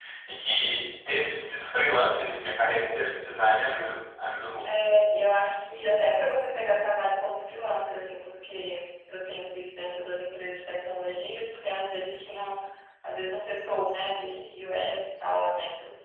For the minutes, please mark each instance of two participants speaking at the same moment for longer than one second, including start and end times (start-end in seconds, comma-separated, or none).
none